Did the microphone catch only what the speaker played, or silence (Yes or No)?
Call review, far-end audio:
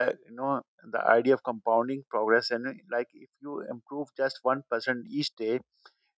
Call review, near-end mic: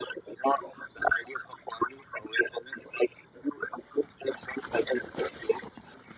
Yes